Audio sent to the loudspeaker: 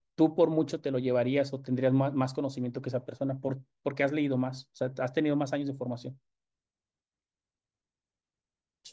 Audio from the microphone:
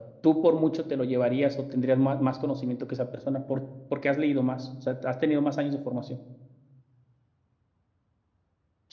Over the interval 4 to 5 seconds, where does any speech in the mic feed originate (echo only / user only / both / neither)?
echo only